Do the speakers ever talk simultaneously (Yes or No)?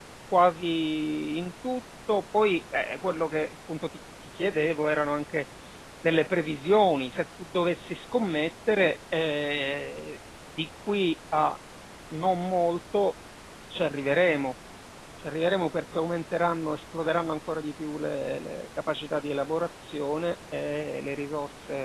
No